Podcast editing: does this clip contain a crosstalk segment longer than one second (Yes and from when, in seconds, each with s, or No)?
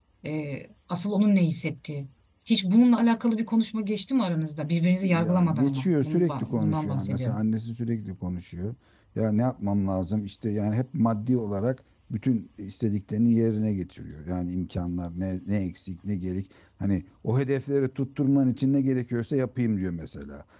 Yes, from 5.0 s